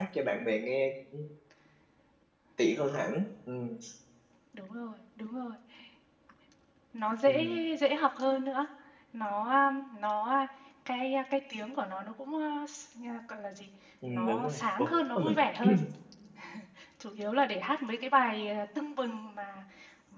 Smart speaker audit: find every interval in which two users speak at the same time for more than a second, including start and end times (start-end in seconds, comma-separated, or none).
14.1-15.4